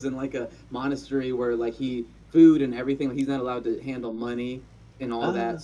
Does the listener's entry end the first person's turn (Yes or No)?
No